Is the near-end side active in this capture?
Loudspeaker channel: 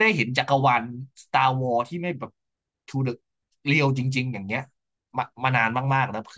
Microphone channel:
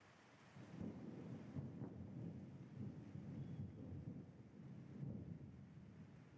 No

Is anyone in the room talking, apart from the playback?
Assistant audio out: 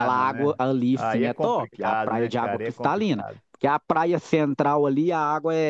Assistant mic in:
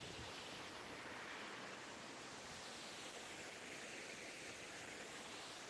No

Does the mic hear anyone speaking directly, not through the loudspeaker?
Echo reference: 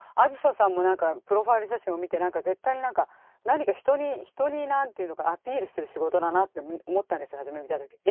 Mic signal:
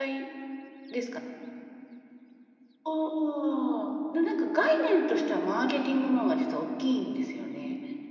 Yes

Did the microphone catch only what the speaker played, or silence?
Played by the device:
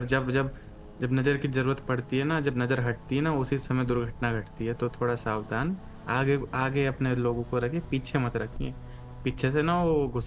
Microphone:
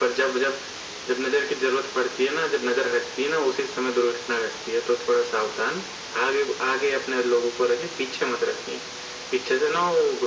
Yes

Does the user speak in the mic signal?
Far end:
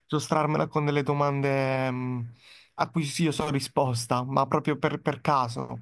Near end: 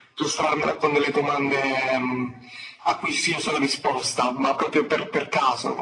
No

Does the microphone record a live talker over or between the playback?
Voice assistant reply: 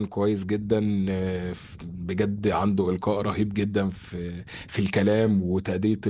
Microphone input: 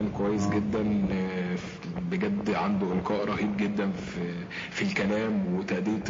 Yes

